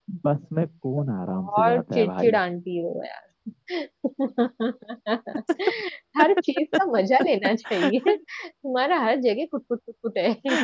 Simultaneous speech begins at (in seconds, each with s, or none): 1.0 s